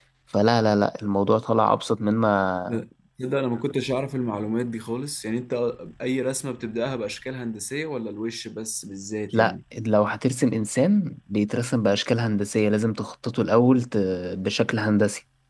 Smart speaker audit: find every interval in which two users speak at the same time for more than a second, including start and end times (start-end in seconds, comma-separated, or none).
none